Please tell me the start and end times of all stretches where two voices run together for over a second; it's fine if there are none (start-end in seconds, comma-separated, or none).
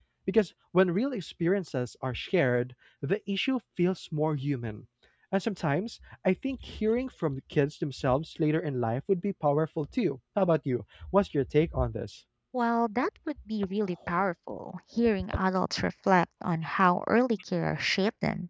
none